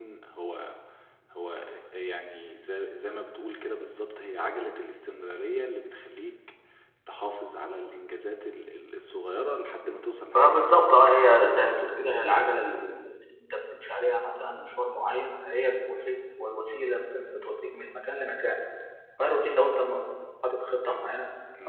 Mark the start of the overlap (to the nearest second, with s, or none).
10 s